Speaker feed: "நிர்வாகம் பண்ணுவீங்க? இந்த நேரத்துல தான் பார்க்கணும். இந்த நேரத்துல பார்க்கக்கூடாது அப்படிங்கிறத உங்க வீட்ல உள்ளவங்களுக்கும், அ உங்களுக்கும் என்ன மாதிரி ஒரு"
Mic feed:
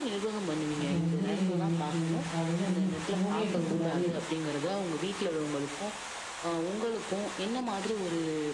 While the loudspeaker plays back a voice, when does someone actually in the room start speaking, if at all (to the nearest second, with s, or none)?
1 s